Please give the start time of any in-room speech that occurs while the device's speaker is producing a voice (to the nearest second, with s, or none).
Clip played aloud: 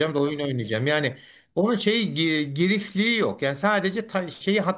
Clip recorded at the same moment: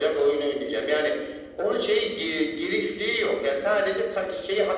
none